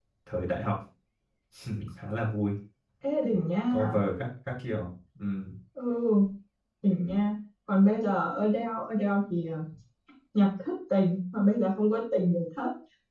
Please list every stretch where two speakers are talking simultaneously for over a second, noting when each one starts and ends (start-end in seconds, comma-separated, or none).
none